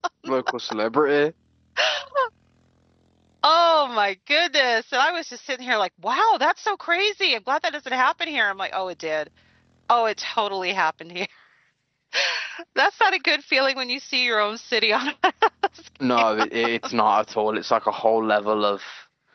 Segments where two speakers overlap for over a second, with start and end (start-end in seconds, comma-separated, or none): none